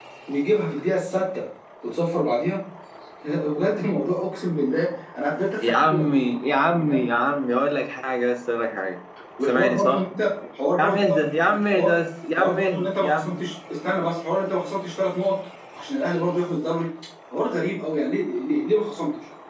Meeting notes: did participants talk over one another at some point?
Yes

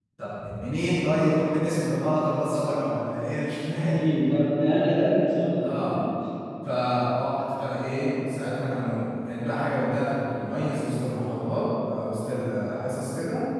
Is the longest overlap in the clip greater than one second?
No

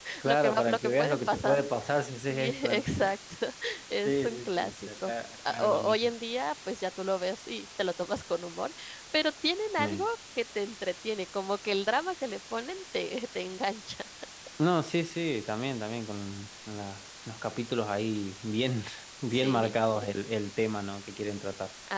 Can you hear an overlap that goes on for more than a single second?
Yes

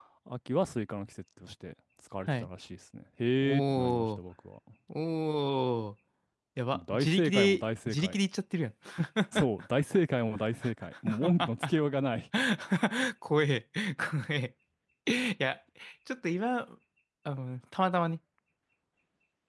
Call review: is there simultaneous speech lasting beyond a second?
Yes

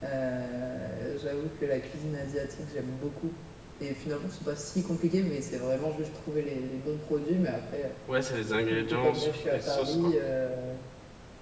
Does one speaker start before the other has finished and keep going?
Yes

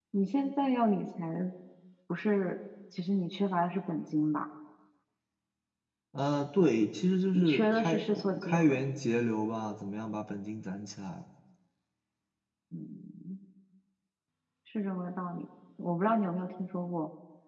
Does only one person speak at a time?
No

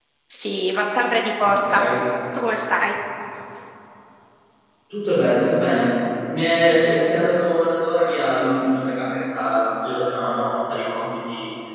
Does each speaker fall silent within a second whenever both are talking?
Yes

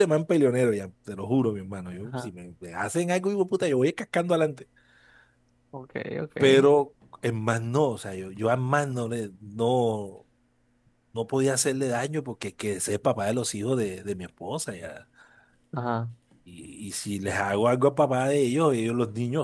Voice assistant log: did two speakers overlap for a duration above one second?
No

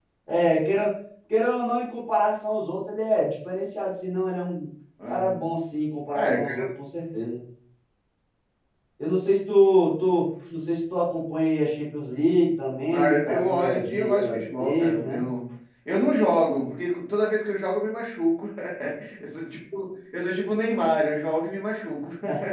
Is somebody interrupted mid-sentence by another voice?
Yes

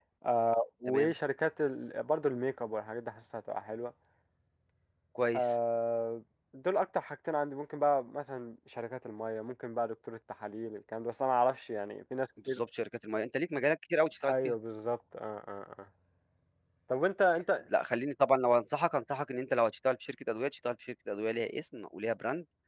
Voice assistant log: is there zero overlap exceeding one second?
Yes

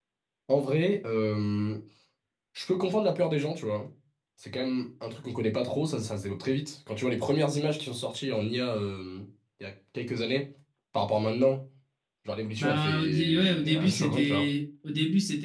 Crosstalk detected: Yes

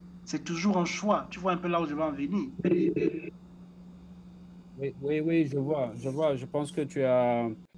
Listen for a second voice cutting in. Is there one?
No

